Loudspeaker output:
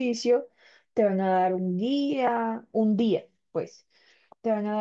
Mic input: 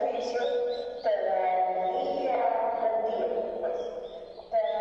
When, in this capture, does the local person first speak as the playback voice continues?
none

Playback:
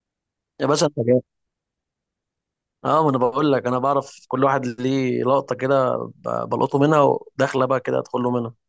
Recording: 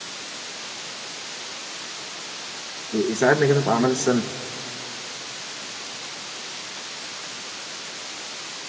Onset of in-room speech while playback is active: 3 s

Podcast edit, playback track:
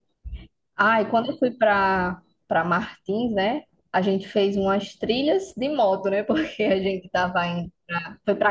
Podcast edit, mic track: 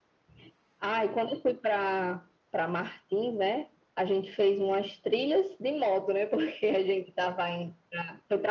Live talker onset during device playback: none

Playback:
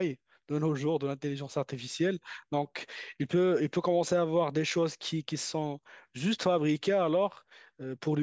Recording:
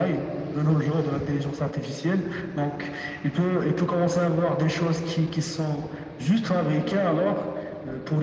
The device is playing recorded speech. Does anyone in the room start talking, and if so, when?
none

